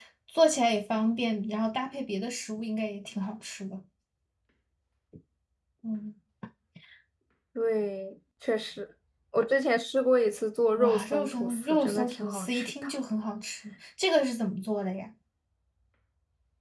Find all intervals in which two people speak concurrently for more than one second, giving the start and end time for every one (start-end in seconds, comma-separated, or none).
10.8-12.9